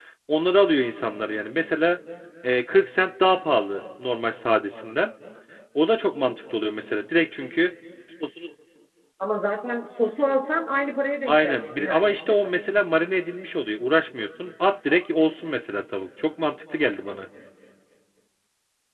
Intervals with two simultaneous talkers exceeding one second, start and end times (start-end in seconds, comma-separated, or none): 11.3-12.5